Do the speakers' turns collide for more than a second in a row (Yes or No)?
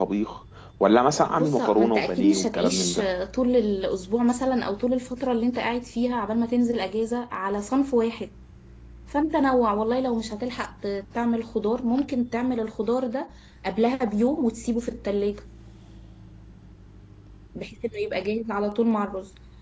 Yes